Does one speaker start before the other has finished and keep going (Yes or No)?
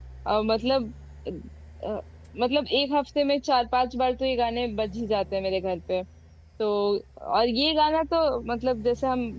No